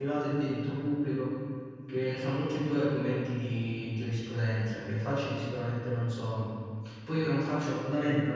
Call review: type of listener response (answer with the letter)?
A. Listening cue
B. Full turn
A